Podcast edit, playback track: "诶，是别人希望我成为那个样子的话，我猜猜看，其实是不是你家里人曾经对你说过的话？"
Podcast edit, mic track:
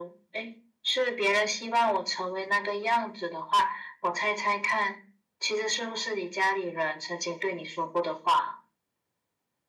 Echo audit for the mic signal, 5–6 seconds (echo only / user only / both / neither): echo only